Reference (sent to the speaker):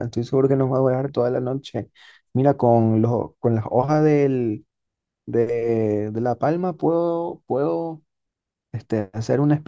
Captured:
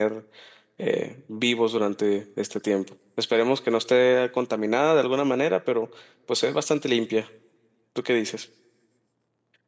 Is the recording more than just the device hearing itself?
Yes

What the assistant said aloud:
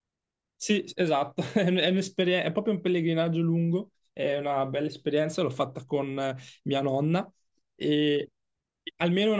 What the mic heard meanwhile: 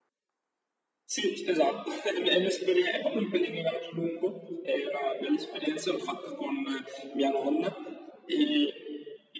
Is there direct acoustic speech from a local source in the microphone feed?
No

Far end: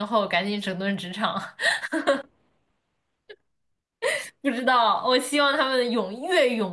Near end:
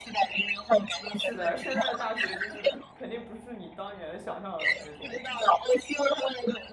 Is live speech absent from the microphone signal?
No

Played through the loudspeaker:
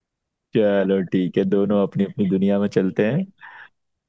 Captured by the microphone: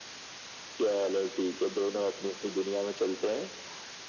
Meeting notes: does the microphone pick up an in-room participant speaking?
No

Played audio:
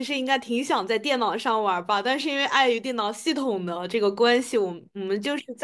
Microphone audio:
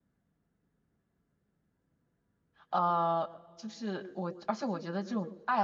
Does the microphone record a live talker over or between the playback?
Yes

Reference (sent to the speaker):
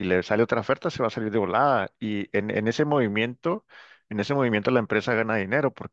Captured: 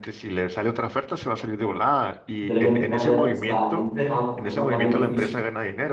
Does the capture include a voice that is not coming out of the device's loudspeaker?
Yes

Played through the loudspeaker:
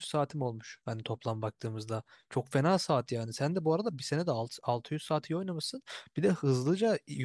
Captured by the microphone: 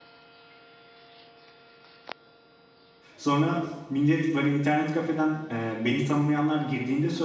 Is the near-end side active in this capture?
Yes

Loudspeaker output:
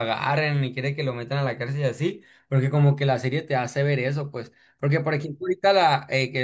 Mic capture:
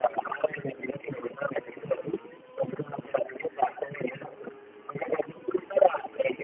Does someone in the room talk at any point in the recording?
No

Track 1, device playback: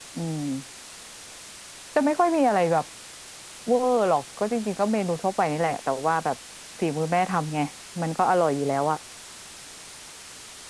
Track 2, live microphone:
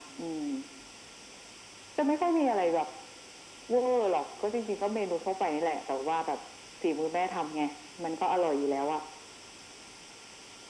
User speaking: No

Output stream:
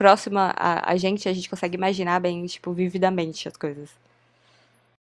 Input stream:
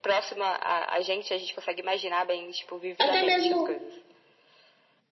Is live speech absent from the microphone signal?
No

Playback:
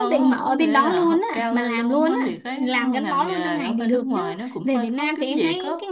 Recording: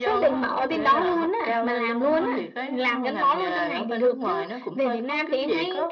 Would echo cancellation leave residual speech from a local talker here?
No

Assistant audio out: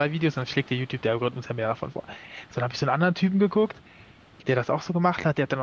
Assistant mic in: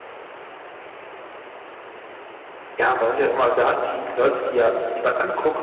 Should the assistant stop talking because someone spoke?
Yes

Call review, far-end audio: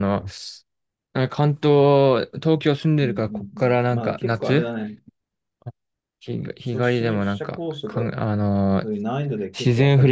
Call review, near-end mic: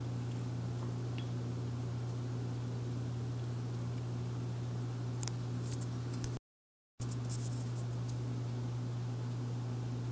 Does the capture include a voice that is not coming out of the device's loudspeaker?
No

